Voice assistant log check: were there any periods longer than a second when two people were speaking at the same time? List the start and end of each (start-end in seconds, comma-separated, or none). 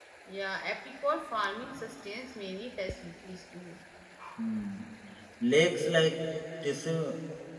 none